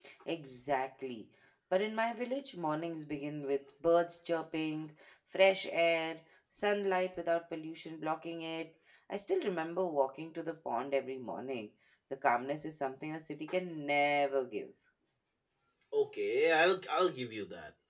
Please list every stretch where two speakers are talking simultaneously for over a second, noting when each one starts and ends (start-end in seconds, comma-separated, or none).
none